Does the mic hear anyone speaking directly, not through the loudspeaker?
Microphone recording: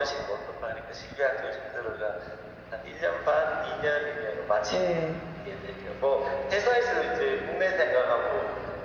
Yes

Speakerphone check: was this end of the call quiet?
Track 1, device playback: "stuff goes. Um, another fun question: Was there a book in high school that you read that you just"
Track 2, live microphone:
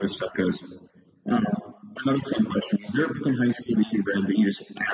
Yes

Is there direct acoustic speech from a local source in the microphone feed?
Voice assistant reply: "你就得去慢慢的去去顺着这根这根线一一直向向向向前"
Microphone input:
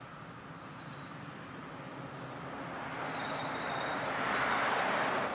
No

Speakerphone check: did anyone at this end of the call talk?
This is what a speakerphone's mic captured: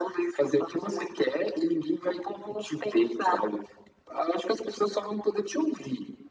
No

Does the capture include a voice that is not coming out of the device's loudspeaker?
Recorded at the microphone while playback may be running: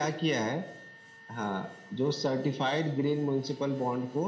No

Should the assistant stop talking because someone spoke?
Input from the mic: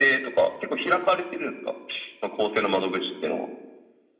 No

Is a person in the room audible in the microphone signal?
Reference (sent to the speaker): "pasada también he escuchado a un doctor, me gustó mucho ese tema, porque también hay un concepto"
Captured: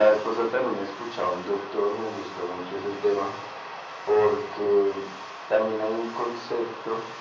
No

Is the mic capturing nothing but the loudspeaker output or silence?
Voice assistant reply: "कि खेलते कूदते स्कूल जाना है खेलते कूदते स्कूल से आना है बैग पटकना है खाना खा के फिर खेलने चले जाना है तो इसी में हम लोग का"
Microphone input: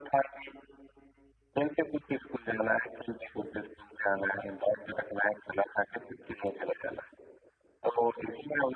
Yes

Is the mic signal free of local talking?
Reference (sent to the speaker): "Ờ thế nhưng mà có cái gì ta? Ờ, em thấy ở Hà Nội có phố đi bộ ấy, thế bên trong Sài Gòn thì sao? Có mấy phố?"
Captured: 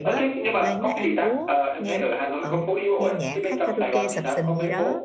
No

